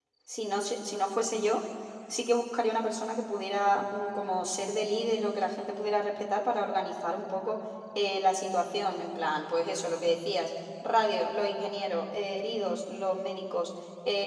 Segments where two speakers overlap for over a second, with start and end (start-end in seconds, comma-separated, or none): none